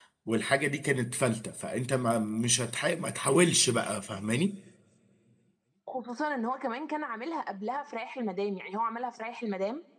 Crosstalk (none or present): none